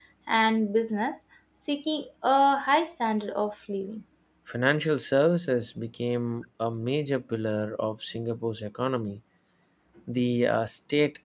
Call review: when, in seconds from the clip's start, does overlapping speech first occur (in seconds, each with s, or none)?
none